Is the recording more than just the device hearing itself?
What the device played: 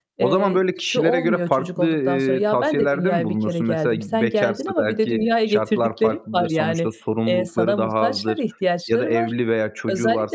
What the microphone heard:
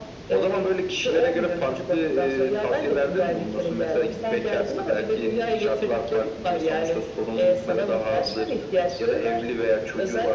No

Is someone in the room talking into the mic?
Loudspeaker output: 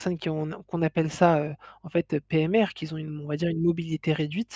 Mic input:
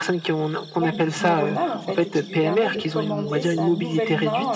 Yes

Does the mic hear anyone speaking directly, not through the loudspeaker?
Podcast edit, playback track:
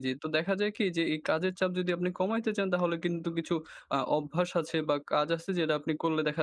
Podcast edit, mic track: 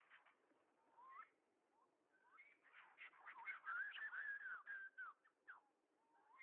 No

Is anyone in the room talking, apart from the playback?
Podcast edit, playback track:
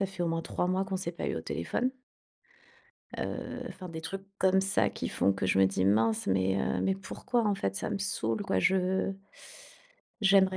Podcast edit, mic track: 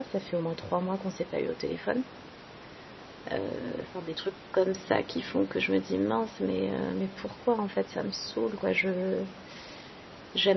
No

